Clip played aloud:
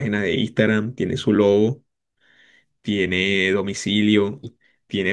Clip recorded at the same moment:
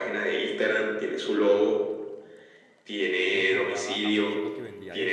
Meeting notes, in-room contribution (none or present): present